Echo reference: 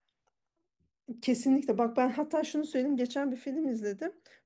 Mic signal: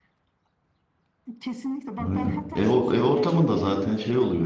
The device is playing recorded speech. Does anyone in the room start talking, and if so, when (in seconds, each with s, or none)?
2.0 s